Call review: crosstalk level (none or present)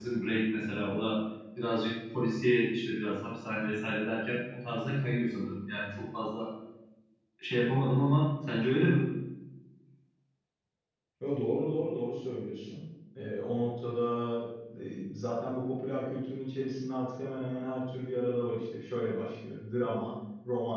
none